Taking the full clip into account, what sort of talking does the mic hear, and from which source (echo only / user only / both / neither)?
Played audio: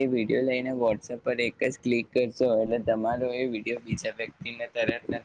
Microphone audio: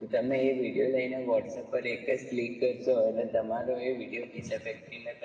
echo only